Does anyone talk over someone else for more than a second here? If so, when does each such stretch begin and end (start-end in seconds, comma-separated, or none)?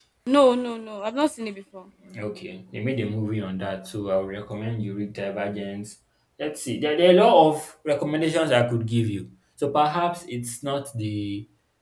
none